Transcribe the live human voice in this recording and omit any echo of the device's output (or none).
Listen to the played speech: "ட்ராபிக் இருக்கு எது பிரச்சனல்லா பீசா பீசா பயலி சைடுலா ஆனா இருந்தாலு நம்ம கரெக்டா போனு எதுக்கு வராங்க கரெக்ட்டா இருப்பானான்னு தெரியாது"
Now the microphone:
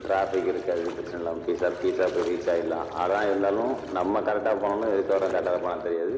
none